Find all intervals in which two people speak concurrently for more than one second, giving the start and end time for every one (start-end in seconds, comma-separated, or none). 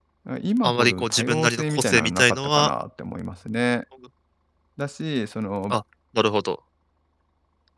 0.6-2.7